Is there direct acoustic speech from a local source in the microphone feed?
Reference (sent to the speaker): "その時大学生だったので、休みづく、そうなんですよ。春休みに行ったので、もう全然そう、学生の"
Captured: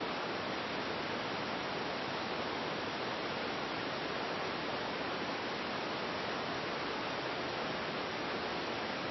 No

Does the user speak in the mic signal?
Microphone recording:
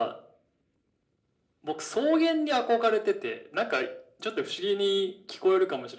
No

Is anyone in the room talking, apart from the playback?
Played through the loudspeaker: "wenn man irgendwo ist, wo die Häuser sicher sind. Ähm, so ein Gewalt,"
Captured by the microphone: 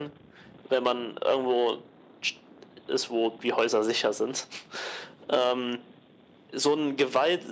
No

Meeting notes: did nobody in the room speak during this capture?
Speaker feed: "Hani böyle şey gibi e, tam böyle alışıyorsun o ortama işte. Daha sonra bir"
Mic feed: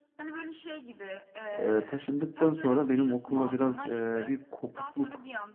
No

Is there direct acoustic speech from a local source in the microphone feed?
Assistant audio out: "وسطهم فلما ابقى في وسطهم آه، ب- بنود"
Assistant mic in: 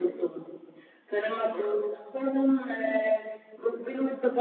No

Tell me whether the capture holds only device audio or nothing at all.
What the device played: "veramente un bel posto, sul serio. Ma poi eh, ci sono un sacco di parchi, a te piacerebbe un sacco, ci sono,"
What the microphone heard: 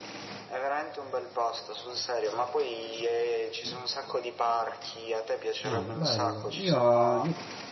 No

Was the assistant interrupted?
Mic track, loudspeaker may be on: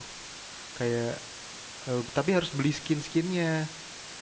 Yes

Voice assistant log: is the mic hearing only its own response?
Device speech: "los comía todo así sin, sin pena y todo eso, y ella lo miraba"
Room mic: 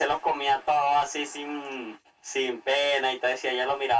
Yes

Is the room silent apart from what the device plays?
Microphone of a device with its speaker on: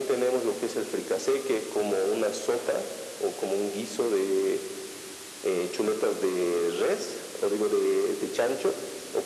Yes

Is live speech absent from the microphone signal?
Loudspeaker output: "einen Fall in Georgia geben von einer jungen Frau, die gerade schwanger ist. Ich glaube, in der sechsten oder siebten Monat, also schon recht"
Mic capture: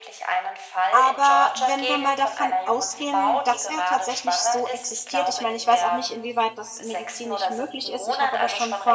No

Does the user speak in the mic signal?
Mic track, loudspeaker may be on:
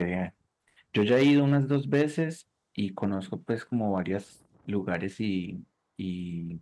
Yes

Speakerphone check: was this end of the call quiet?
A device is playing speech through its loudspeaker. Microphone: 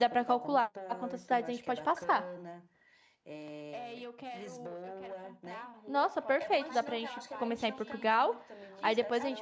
No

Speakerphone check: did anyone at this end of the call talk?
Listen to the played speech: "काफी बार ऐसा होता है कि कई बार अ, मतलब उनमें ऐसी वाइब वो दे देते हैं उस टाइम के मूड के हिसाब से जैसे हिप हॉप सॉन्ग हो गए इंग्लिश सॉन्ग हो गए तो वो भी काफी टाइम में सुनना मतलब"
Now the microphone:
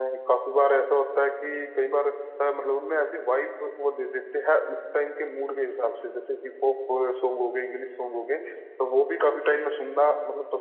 No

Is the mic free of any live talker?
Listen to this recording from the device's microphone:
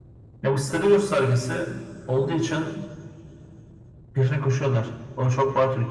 Yes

